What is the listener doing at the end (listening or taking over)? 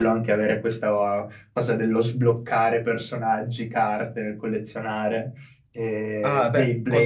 taking over